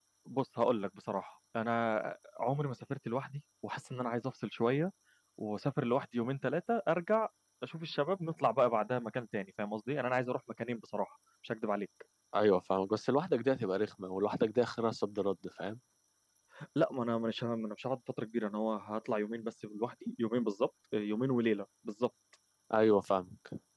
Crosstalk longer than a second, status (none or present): none